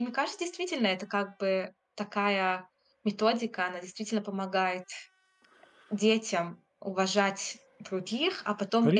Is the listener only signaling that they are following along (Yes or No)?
Yes